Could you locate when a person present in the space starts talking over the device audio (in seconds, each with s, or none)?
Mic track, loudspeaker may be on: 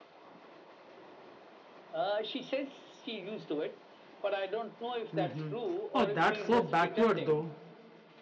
5.1 s